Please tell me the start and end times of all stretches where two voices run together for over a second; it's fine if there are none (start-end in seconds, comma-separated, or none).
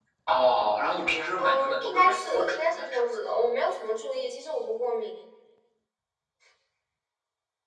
1.4-3.0